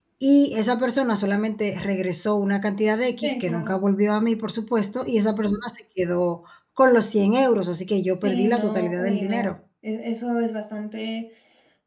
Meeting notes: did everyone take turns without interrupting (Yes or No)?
No